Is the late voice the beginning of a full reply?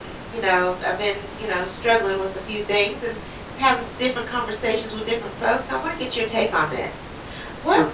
No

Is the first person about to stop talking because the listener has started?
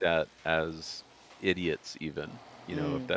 No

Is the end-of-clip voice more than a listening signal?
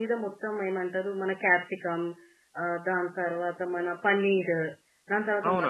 Yes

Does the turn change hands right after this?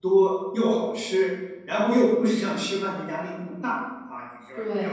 No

